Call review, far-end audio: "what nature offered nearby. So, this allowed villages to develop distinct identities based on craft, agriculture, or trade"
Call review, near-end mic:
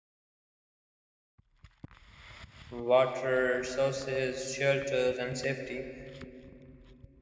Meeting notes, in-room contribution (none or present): present